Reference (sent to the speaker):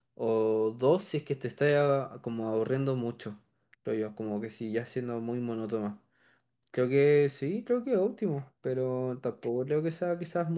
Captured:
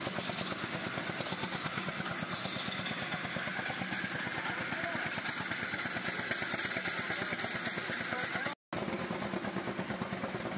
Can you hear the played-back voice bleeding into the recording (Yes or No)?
No